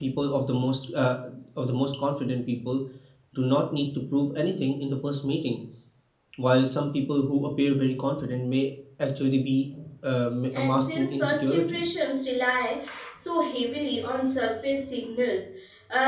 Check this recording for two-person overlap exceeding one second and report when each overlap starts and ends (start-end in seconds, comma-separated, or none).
10.6-11.8